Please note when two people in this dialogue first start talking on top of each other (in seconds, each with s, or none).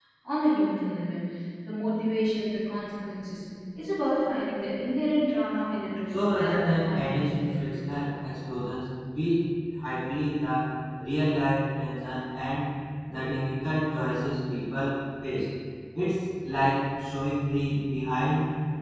6.1 s